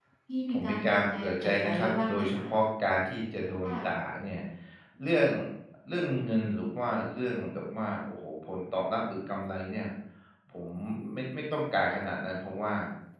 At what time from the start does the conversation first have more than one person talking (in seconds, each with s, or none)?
0.5 s